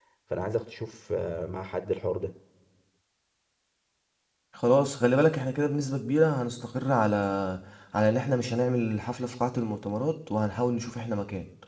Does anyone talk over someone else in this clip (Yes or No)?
No